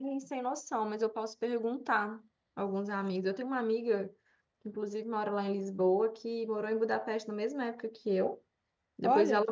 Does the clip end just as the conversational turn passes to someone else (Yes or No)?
No